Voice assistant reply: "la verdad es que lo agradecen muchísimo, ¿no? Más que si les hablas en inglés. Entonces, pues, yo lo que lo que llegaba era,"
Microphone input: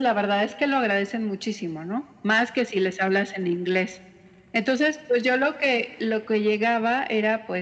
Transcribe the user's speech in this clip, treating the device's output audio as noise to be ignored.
none

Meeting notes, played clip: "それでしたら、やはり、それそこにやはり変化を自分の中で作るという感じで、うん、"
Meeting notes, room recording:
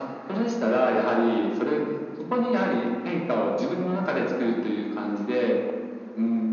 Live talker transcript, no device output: none

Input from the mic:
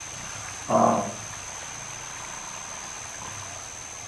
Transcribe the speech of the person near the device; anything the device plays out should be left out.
آه،

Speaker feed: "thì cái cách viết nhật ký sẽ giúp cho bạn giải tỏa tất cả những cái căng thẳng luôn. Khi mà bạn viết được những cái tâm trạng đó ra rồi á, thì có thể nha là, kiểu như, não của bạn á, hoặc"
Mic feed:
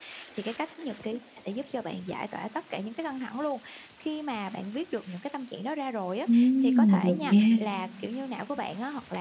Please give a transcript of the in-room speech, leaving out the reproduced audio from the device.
Ừm, được nha.

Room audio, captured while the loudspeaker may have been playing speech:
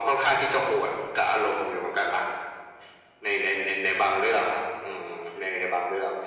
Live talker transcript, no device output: none

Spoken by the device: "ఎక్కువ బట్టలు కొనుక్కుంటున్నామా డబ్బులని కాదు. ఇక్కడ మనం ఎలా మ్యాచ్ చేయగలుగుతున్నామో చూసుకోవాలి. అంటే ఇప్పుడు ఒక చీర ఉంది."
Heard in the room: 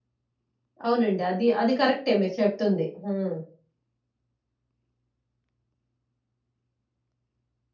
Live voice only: అవునండి. అది, అది కరెక్టే మీరు చెప్తుంది. హ్మ్.

